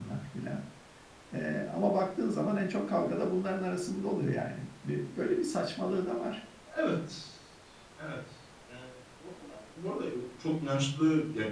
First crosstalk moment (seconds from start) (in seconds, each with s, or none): none